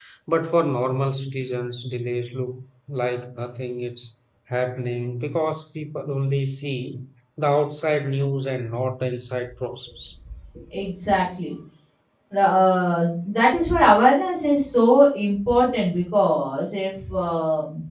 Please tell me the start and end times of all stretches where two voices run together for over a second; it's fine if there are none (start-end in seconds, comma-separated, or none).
none